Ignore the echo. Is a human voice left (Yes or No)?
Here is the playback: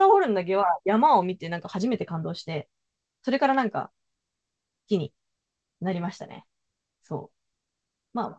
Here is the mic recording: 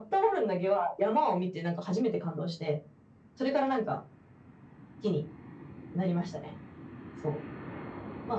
No